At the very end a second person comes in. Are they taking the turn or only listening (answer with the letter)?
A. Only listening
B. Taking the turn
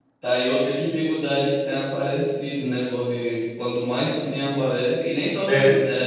A